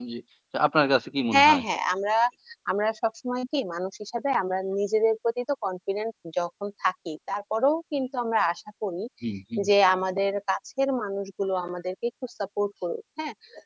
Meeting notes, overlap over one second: none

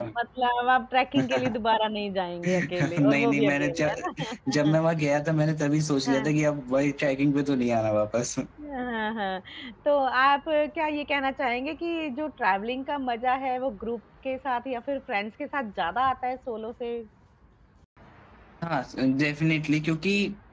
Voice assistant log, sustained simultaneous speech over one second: present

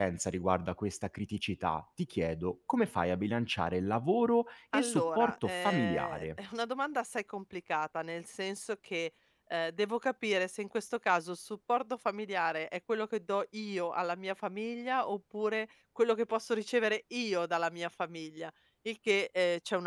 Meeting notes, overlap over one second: present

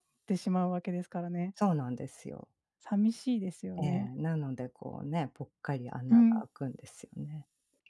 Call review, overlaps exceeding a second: none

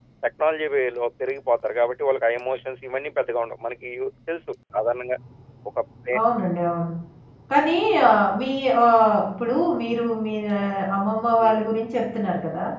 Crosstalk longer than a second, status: none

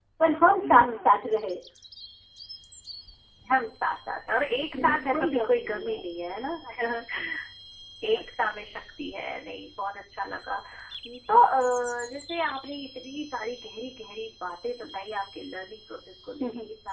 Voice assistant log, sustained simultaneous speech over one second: present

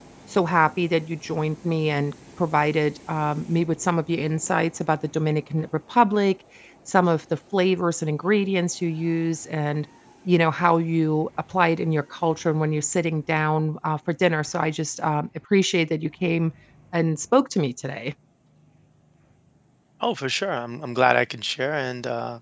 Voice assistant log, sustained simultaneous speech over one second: none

